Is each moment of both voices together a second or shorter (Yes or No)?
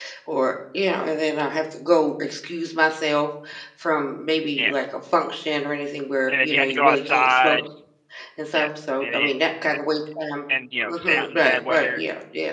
No